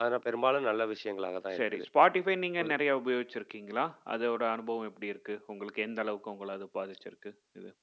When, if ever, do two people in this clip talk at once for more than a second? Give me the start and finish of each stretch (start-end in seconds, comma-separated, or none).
none